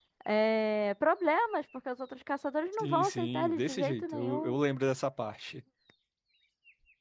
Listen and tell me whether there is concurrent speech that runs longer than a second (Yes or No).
Yes